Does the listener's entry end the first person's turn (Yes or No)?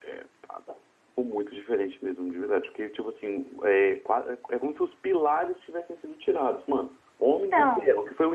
No